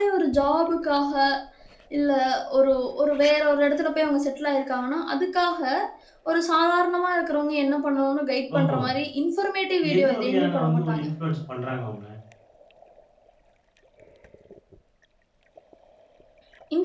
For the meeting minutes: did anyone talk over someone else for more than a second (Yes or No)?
Yes